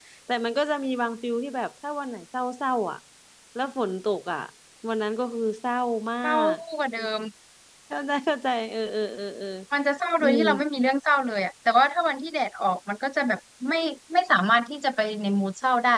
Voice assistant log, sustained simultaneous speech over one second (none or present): none